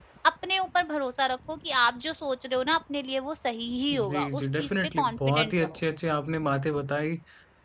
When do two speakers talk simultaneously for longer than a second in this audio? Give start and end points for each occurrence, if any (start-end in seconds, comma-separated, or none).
3.9-5.8